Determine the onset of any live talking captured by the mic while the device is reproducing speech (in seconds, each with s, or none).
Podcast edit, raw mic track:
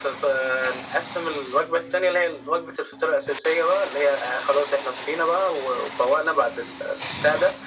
none